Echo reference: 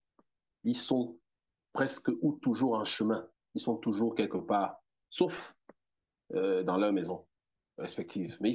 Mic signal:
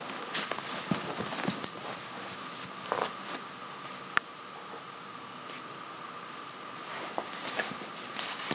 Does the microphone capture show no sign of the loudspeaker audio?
Yes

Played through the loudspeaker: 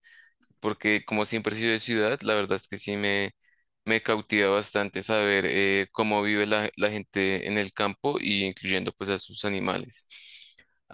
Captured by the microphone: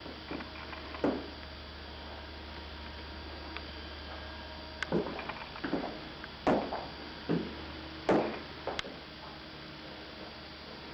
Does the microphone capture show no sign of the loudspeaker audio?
Yes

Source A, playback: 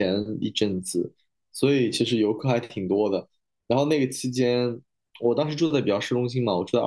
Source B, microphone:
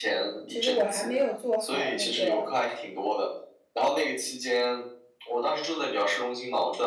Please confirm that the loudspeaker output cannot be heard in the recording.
No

